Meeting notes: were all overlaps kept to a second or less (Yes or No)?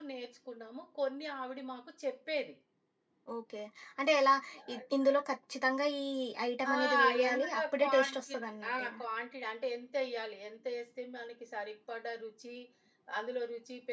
No